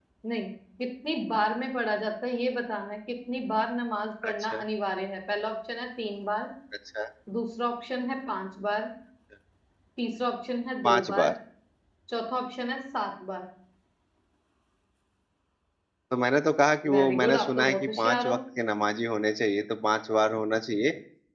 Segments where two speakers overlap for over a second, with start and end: 16.9-18.4

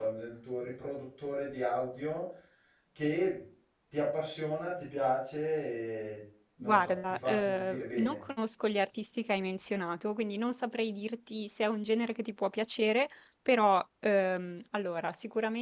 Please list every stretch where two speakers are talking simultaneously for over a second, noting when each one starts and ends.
6.6-8.2

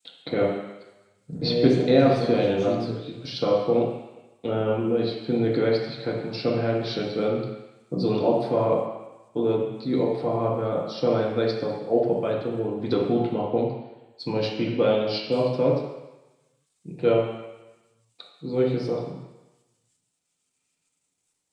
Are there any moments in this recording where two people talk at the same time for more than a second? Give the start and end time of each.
1.4-2.9

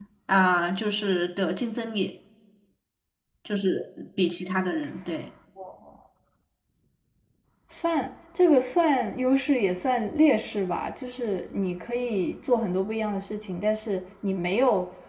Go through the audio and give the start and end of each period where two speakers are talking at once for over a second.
none

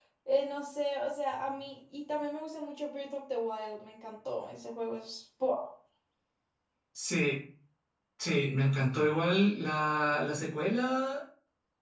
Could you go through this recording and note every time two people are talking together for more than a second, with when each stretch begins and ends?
none

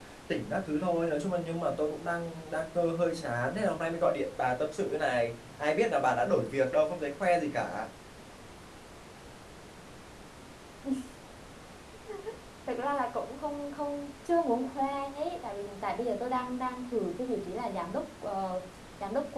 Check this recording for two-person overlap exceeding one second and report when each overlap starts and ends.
none

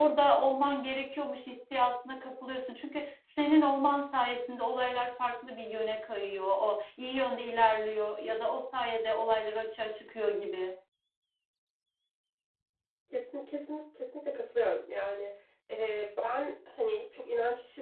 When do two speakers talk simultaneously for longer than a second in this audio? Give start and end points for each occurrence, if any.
none

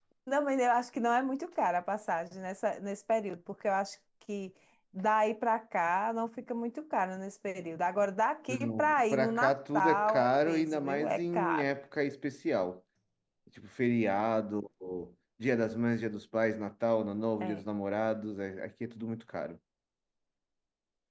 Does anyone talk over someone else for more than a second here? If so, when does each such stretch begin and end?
8.5-11.6

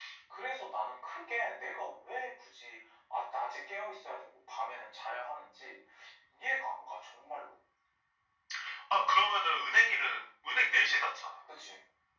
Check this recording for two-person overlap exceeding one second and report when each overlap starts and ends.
none

